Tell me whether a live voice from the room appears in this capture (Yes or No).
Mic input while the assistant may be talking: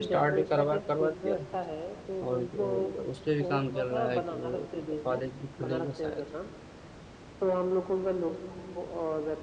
Yes